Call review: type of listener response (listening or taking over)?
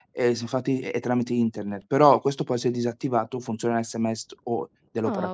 taking over